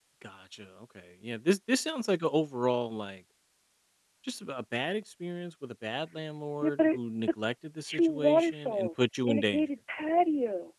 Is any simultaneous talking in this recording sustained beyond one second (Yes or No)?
Yes